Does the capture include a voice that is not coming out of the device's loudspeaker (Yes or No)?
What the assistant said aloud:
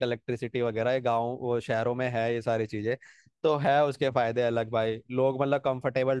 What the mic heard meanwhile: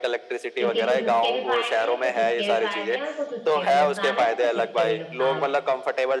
Yes